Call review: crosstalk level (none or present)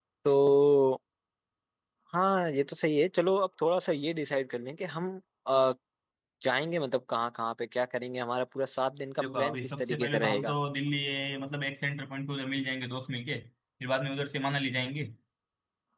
present